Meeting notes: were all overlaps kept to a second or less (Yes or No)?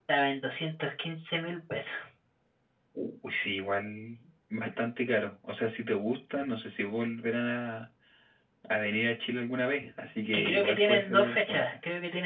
No